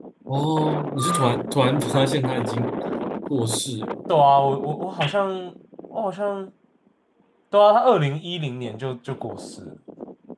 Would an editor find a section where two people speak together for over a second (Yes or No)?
No